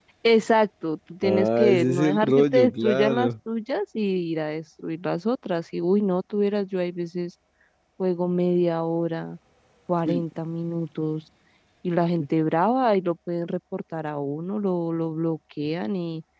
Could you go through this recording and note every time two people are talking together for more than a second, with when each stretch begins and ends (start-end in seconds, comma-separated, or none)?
1.2-3.3